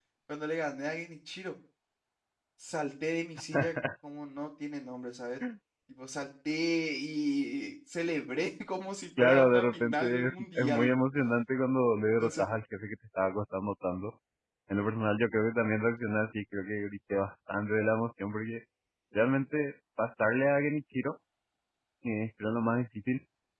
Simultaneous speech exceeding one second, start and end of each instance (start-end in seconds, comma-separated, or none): 9.2-11.1